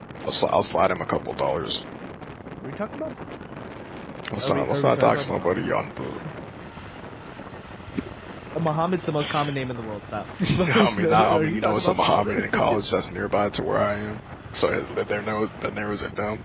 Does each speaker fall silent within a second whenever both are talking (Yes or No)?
No